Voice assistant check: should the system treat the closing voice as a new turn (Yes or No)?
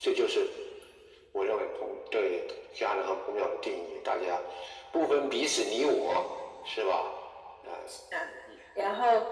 Yes